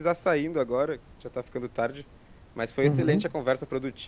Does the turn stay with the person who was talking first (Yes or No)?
Yes